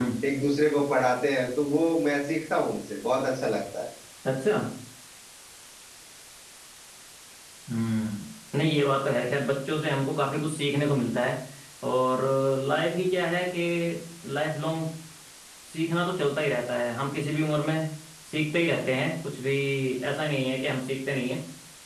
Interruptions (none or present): none